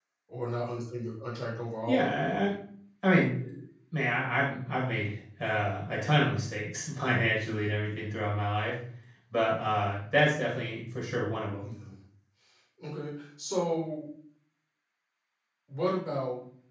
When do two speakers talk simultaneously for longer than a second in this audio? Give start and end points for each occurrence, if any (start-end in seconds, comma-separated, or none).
none